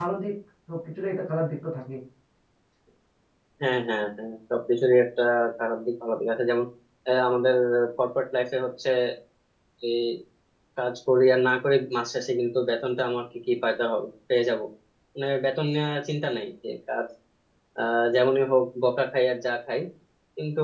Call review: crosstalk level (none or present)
none